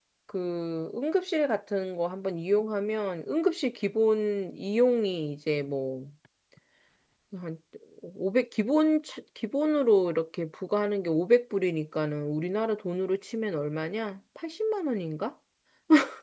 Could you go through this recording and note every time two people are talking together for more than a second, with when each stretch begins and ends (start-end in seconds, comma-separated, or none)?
none